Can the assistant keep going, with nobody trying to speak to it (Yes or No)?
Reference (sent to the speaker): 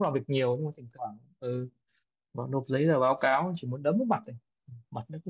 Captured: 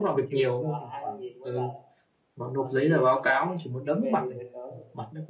No